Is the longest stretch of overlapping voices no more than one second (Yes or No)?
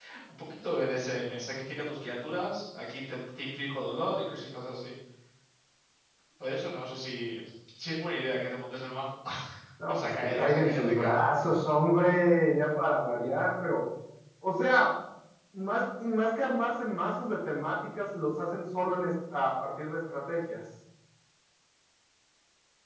No